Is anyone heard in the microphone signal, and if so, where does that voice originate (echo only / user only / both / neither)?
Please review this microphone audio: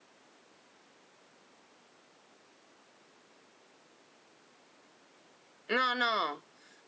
user only